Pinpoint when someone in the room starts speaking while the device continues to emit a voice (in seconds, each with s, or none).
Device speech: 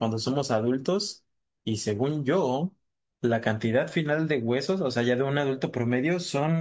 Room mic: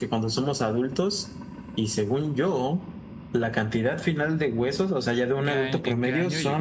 5.4 s